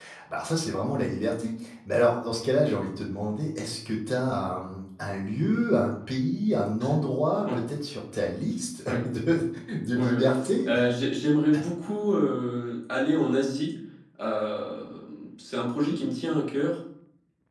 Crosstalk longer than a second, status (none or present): none